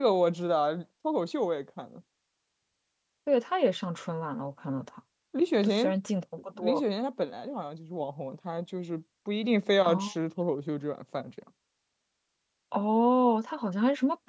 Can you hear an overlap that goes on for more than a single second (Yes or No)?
No